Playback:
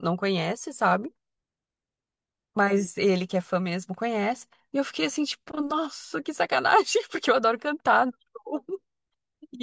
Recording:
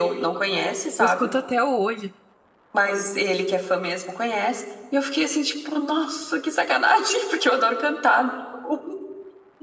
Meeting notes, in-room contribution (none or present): present